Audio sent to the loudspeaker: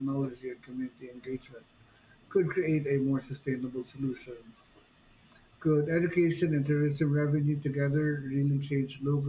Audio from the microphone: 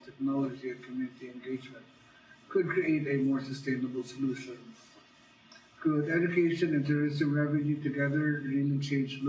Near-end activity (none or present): none